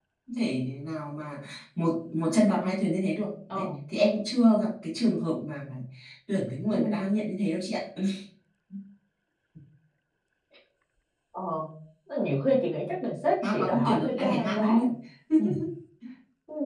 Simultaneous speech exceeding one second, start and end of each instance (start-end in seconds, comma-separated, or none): 13.4-14.8